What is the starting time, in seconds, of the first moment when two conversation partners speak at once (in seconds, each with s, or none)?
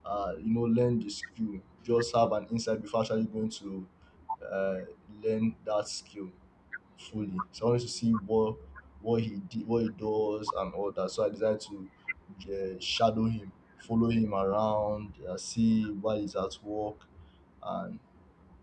none